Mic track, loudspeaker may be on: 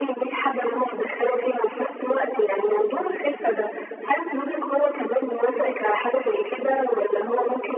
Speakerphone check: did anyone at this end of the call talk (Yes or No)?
No